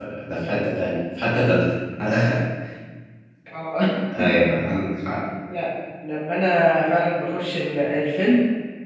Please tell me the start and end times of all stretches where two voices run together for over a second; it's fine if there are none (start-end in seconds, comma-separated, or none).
none